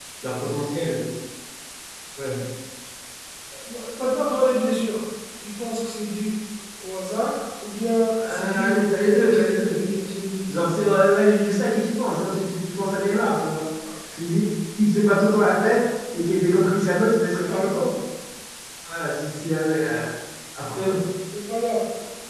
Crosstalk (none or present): present